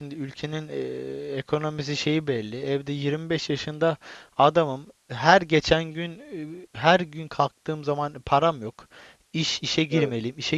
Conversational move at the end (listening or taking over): listening